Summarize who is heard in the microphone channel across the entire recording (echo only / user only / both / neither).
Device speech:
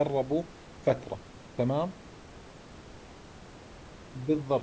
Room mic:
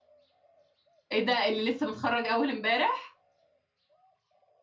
user only